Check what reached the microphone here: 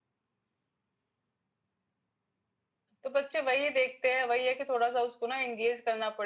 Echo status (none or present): none